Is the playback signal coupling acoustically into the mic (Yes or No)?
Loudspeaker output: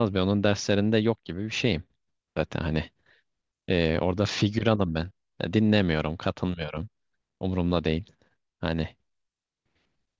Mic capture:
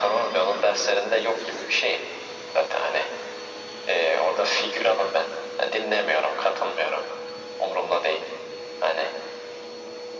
Yes